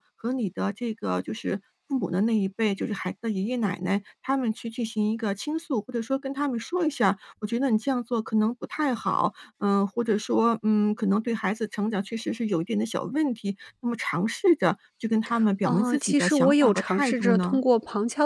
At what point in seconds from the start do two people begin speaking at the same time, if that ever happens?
15.7 s

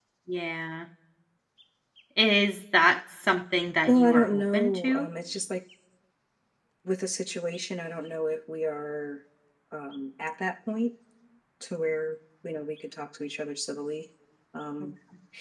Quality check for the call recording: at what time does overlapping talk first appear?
3.9 s

